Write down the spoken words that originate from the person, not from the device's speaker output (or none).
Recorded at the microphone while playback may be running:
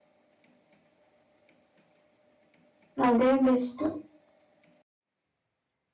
ಅದೇ ಬೆಸ್ಟ್